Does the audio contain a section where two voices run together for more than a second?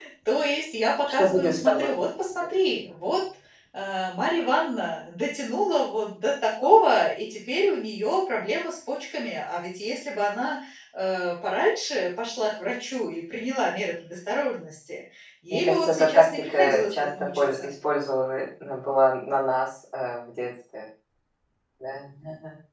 Yes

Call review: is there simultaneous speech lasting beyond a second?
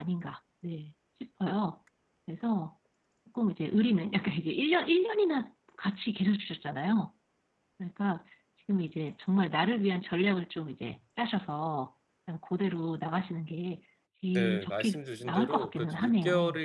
Yes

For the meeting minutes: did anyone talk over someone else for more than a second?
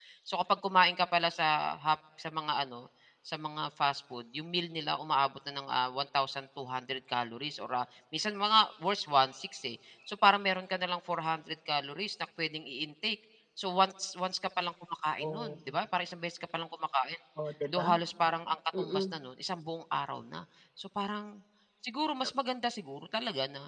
No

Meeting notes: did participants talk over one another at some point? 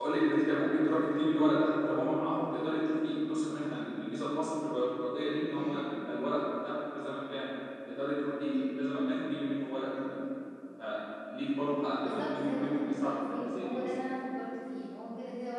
Yes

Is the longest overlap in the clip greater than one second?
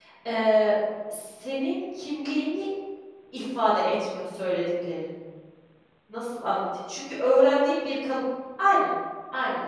No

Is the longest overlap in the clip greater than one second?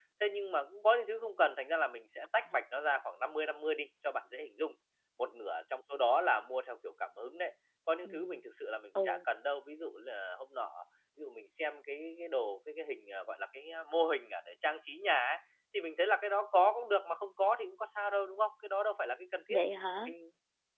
No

